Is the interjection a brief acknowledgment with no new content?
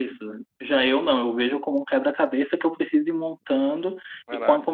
Yes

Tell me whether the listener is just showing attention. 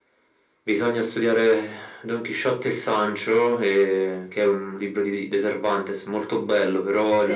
Yes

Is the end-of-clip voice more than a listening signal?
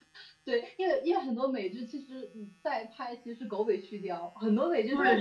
Yes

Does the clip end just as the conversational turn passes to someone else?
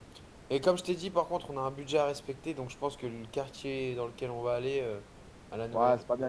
Yes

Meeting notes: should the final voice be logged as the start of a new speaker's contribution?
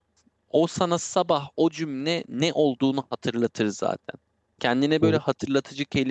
No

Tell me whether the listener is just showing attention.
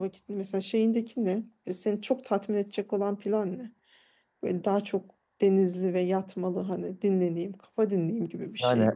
No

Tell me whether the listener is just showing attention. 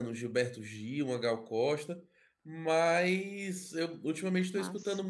Yes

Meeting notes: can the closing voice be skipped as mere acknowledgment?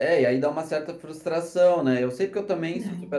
Yes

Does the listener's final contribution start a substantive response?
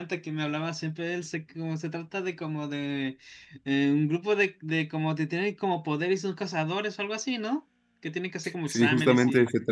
Yes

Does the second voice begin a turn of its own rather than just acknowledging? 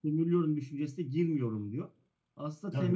Yes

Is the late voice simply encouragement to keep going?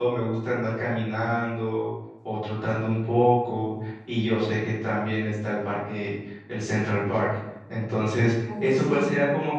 Yes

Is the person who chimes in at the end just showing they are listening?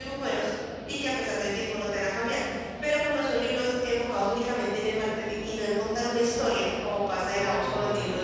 Yes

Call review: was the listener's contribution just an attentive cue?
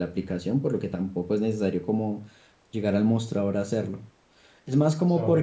No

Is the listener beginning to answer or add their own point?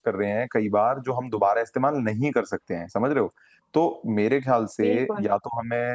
No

